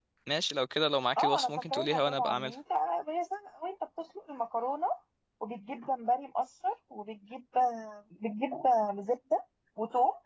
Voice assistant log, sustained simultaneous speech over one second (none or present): present